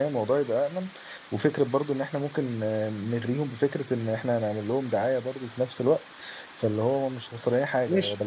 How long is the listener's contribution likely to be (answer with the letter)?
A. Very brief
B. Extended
B